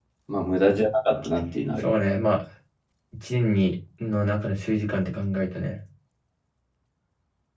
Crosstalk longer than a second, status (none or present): none